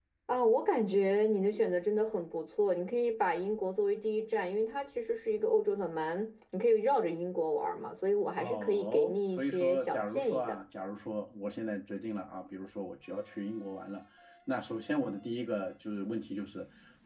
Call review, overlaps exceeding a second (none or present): present